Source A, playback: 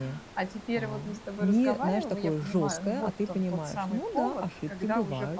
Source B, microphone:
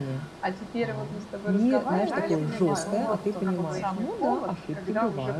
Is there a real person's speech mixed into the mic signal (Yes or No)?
Yes